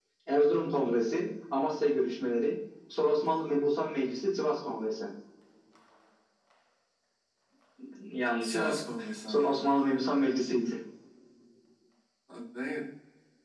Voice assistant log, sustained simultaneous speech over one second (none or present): none